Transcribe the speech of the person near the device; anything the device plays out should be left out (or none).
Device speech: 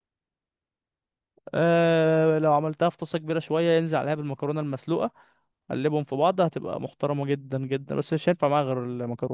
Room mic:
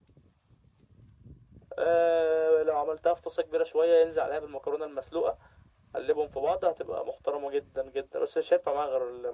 none